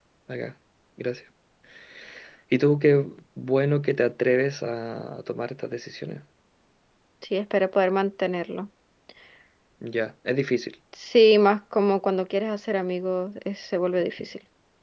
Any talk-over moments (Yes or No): No